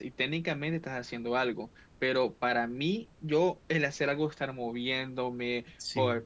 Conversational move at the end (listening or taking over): listening